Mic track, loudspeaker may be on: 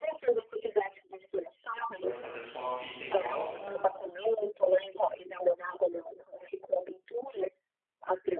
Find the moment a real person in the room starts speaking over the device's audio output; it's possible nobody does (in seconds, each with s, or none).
1.9 s